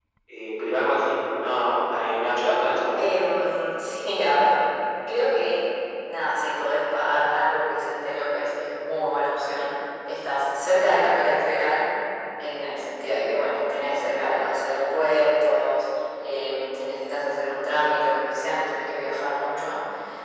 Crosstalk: none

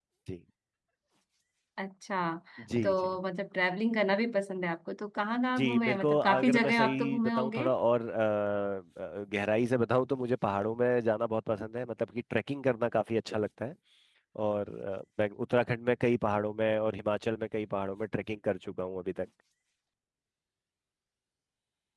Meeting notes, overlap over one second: present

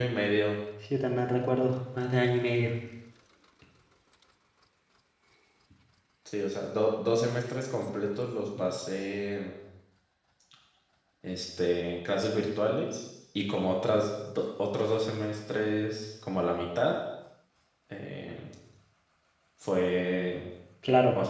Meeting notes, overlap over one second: none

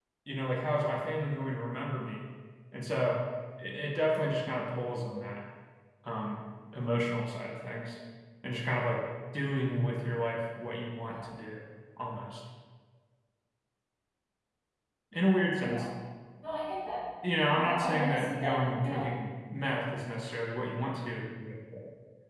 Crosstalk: present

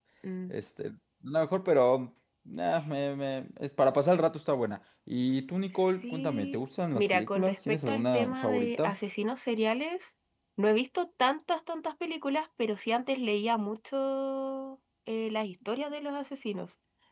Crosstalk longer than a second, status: present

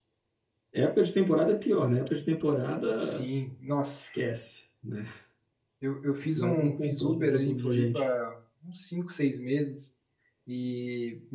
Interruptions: present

